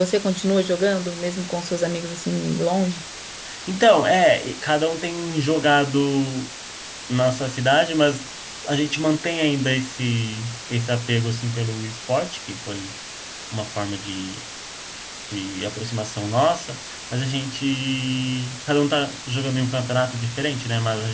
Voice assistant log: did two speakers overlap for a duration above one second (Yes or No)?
No